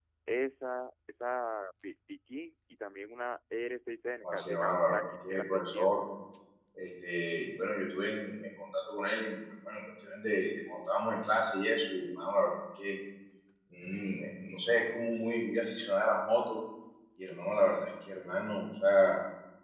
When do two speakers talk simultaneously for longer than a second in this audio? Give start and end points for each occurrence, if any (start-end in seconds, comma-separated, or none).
4.2-5.9